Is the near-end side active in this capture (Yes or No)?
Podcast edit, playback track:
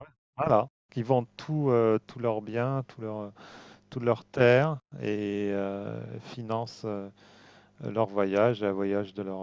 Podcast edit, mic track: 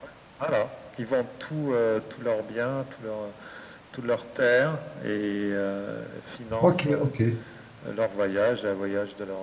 Yes